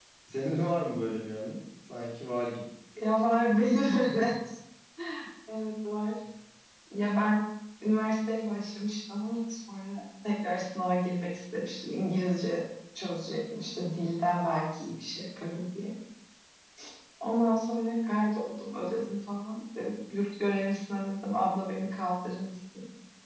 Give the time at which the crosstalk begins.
none

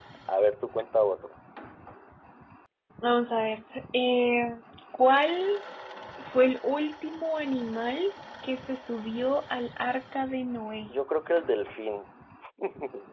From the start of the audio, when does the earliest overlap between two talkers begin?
none

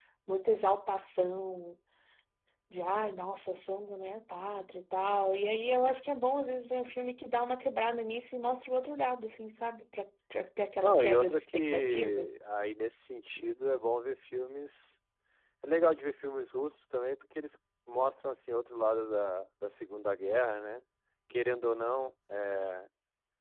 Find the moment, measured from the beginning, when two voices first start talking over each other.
10.8 s

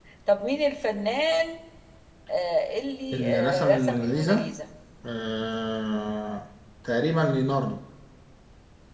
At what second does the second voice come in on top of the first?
3.1 s

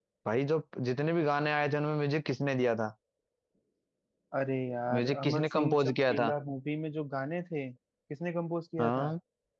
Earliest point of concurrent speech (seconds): 5.0 s

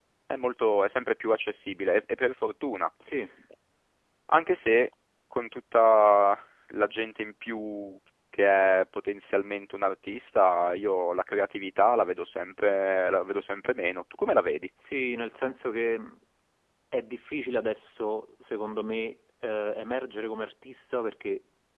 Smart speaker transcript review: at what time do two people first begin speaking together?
none

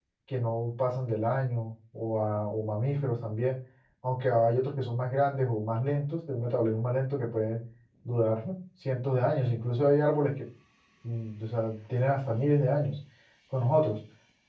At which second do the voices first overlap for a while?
none

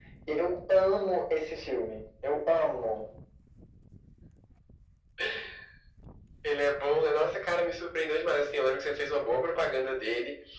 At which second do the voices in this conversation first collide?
none

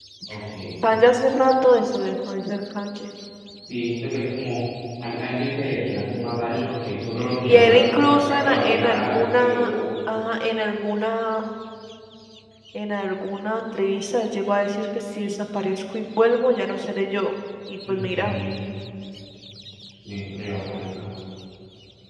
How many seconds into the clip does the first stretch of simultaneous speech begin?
7.4 s

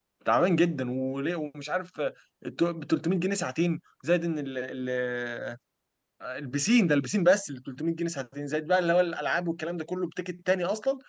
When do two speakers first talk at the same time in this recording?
none

